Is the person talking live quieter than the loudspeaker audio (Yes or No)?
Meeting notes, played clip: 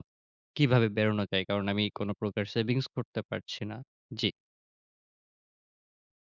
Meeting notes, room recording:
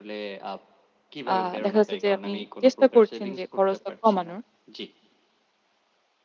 No